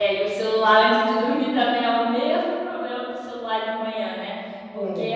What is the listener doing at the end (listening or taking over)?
listening